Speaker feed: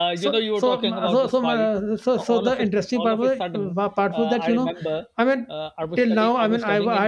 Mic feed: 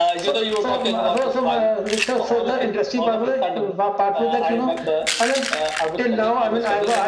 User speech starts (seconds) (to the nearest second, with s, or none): none